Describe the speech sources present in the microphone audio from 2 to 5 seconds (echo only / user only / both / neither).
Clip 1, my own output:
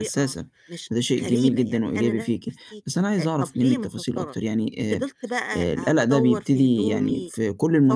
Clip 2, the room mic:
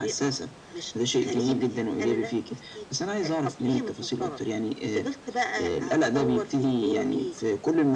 echo only